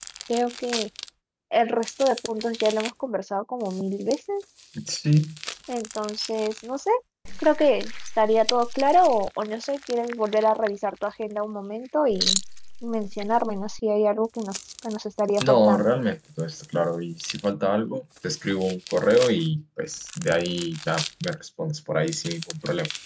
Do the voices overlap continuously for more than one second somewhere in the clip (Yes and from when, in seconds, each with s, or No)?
No